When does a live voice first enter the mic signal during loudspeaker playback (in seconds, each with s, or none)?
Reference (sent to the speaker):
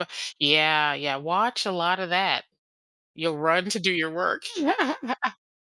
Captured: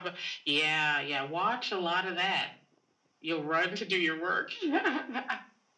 none